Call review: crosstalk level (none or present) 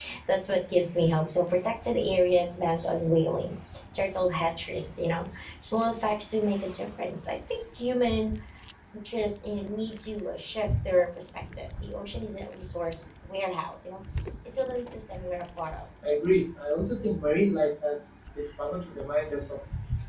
none